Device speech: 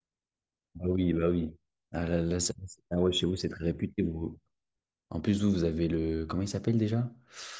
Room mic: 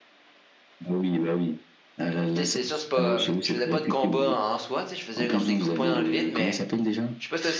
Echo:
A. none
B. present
B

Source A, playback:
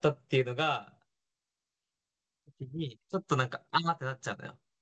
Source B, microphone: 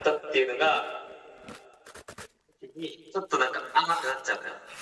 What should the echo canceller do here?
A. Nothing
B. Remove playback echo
B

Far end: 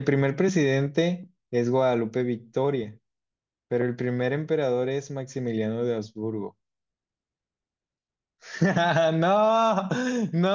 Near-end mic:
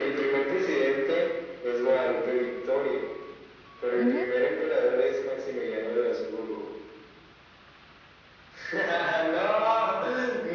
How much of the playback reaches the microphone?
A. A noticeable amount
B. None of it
A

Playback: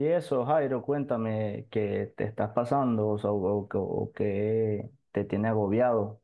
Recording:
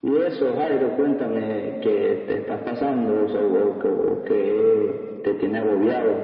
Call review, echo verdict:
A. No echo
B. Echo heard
B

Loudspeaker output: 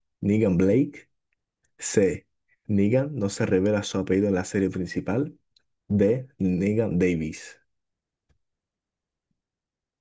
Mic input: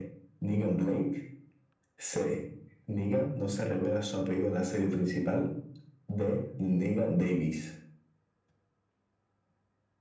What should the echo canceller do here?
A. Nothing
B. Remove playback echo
B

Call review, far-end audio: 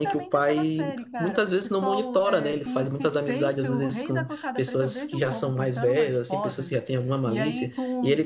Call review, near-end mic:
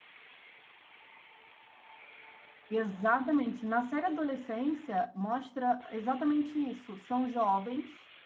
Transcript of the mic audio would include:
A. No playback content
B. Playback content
A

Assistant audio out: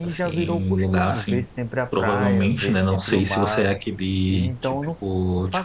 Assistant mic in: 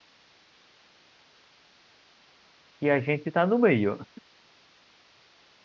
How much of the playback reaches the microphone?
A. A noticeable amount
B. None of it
B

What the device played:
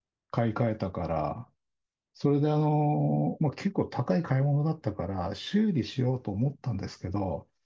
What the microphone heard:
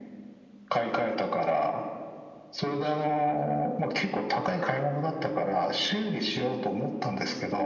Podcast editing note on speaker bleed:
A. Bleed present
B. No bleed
A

